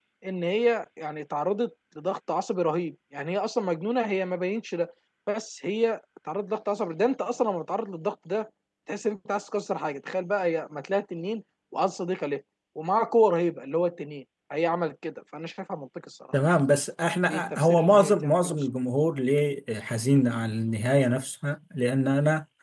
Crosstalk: present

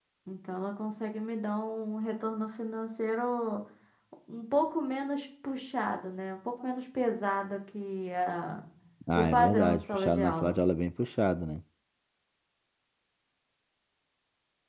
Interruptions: present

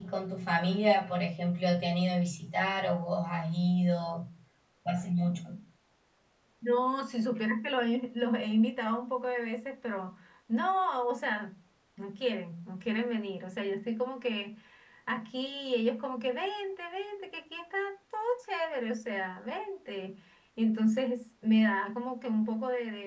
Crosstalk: none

